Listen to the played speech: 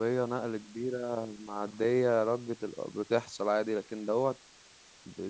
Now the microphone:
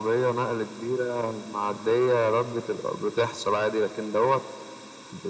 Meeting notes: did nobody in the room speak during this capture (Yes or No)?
Yes